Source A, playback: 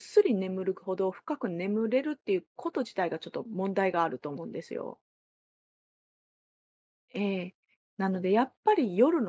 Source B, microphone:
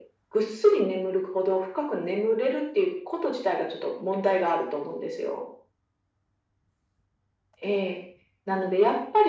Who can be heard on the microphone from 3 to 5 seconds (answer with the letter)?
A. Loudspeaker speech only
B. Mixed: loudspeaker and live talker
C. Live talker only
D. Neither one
A